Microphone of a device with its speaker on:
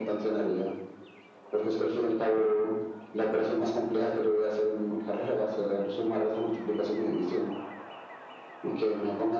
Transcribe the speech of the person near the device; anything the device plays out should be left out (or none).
none